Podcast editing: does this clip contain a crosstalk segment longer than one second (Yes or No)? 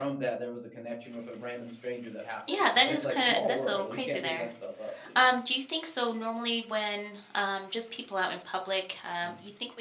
Yes